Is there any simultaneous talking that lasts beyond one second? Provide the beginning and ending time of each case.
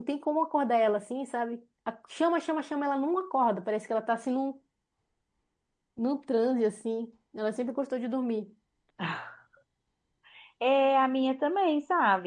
none

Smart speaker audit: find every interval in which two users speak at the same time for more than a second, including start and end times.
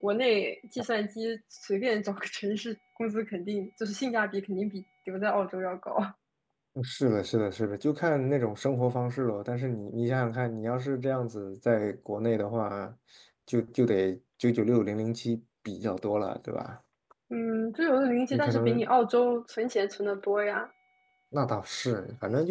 none

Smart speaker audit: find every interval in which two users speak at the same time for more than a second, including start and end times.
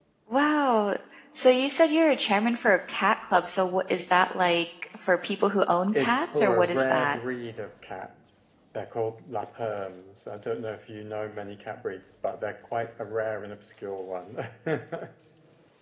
5.9-7.2

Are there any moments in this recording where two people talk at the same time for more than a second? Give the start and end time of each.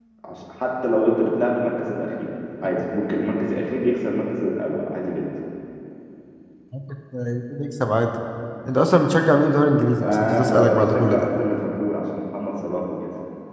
10.0-11.3

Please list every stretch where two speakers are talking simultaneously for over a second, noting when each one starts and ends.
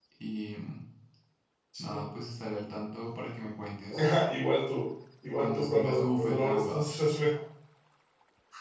5.3-7.0

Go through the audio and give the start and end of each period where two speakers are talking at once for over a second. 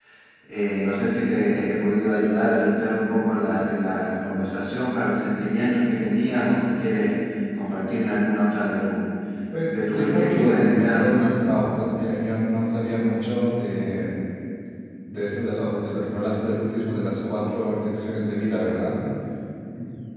9.7-11.1

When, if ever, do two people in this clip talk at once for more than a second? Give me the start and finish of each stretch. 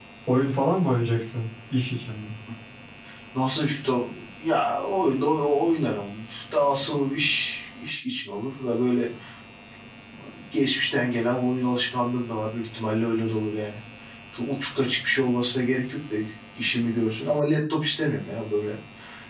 none

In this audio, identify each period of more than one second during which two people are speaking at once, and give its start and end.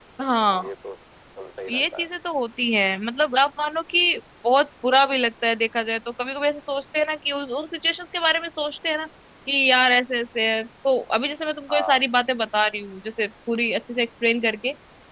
none

